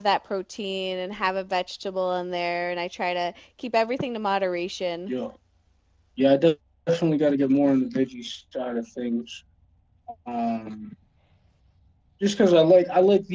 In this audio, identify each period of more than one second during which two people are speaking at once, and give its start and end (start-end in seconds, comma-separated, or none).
none